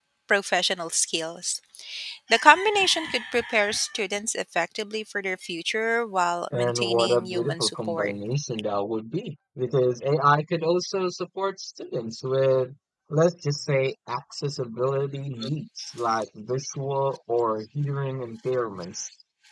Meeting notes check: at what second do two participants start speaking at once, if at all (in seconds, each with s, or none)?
6.5 s